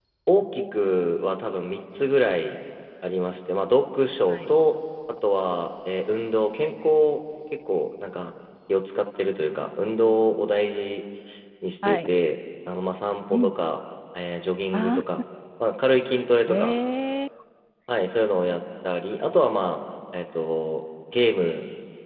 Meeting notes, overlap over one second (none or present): none